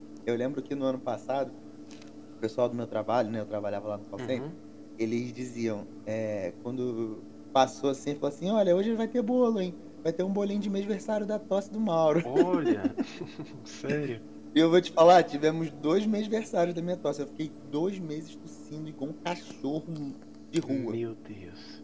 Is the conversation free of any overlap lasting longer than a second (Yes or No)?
Yes